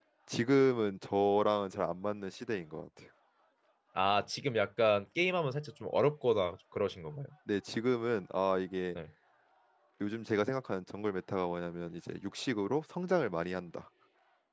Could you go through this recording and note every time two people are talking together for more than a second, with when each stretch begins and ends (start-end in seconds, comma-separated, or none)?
none